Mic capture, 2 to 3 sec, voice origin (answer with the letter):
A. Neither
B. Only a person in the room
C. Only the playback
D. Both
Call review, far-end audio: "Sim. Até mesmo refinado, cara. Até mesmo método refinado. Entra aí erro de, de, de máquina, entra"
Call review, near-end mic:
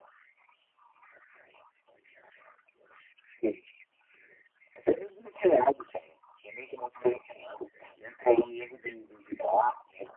A